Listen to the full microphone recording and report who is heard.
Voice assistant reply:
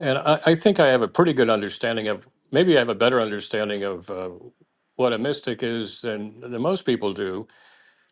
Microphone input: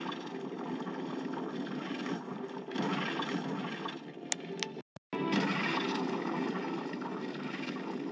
neither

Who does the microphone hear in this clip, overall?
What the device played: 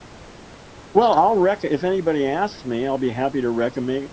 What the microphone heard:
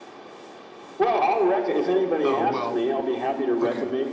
both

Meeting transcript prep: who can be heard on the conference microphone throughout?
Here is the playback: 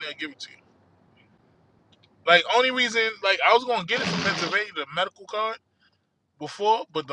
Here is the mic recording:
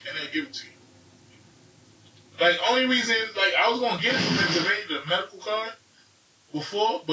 echo only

